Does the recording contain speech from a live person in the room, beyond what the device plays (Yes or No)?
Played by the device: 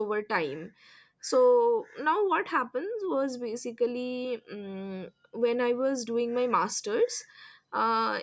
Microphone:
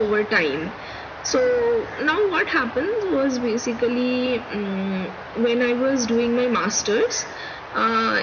No